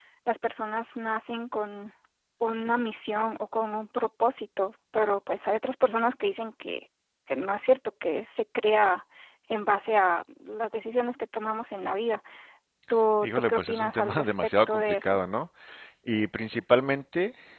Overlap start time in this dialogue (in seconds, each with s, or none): 13.2 s